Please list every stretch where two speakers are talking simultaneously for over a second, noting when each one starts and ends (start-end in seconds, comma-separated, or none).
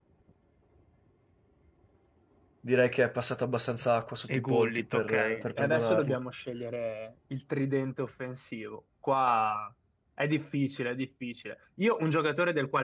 4.3-6.2